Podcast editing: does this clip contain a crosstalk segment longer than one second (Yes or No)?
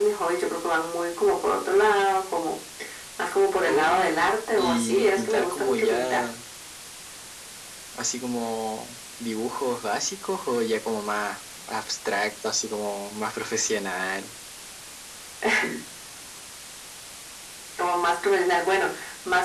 Yes